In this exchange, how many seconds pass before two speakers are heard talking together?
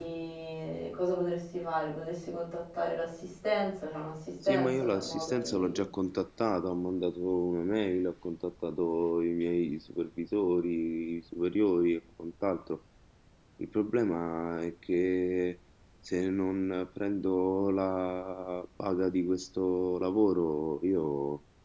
4.4 s

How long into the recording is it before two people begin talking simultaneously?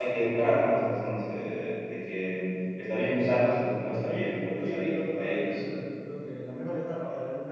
4.0 s

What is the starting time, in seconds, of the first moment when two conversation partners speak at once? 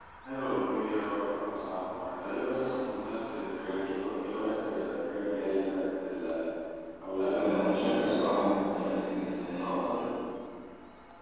7.4 s

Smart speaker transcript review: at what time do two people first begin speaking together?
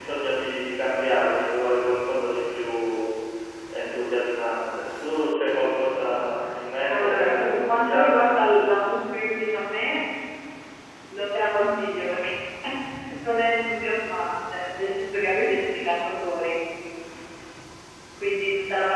6.9 s

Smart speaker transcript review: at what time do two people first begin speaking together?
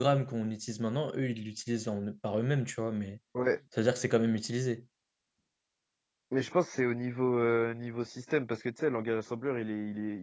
none

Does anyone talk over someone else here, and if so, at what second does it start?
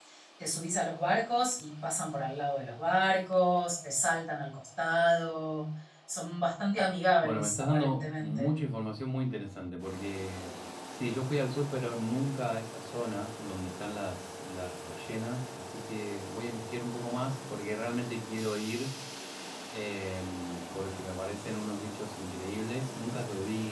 7.2 s

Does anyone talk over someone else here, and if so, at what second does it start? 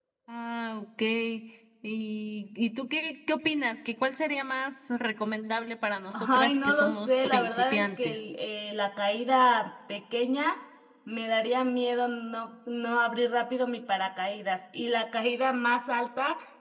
6.1 s

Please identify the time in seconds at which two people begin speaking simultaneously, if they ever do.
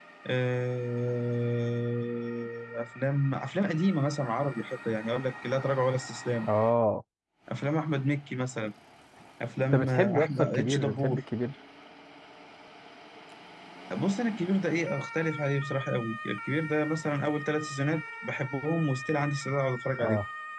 9.6 s

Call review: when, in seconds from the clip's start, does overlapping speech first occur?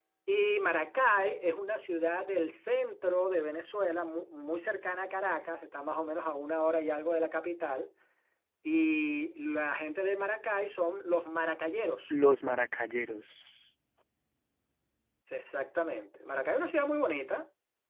none

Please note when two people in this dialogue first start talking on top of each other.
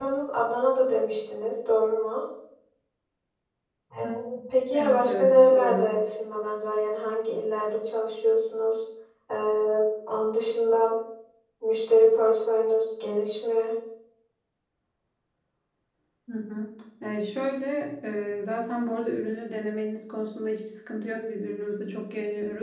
4.7 s

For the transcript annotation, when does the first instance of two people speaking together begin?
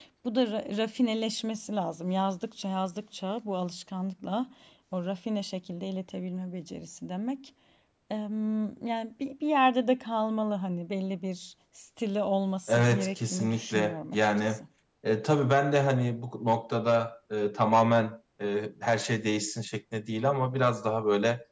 12.7 s

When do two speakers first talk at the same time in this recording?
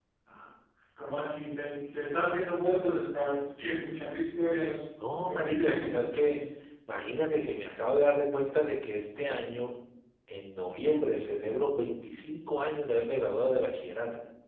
4.9 s

